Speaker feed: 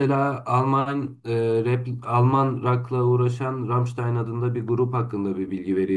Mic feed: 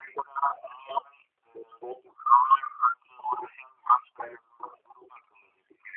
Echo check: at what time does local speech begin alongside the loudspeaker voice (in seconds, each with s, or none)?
none